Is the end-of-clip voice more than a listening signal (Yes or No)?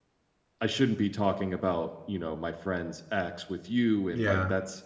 No